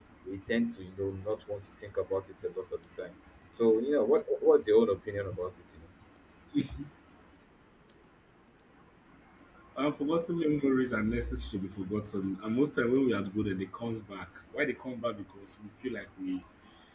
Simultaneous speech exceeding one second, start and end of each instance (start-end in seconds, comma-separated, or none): none